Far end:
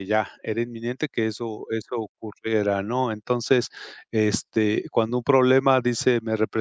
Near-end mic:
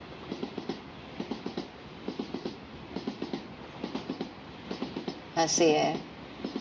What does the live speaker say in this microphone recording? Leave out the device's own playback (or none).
así es,